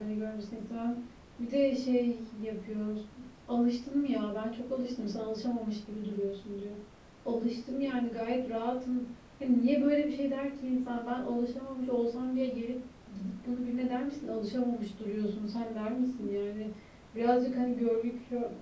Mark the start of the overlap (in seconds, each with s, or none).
none